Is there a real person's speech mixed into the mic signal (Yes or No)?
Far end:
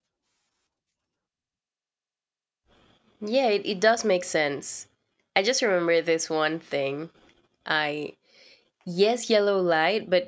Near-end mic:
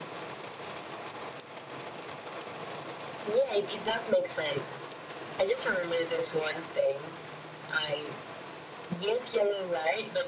No